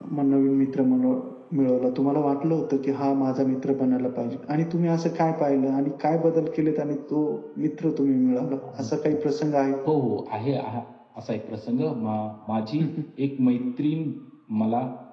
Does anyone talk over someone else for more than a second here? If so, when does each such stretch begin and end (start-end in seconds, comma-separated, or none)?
none